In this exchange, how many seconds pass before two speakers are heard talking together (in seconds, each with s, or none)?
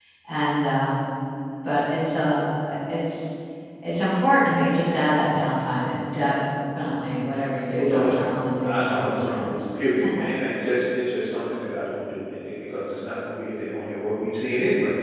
7.7 s